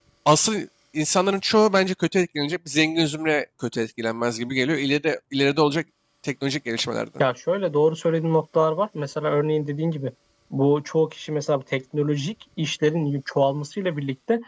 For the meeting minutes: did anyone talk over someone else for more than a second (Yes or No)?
No